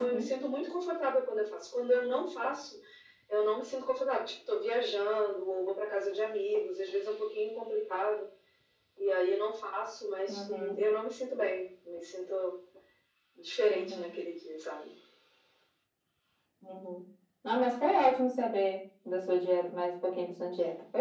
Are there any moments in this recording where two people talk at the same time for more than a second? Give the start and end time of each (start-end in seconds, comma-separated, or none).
none